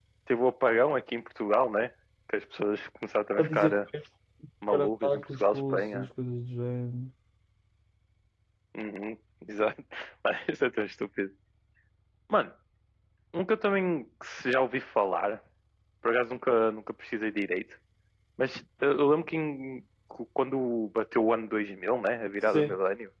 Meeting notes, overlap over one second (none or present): present